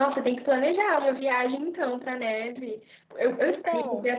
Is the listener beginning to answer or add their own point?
No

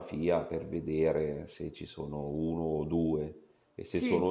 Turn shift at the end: No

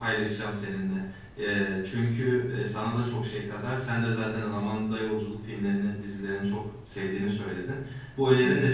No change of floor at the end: Yes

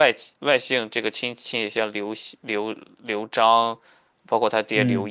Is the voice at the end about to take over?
No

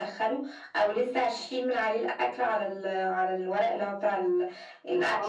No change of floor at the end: No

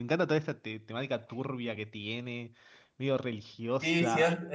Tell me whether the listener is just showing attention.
No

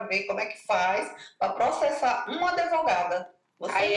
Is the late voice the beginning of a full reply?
Yes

